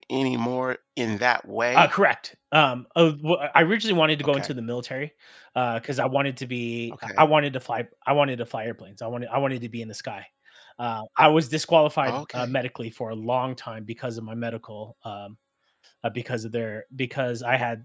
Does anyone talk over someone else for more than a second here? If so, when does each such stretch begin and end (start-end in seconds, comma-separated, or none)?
none